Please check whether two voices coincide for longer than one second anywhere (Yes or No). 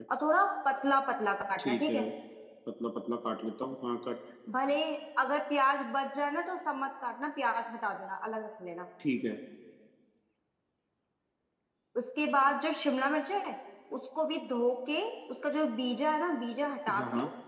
No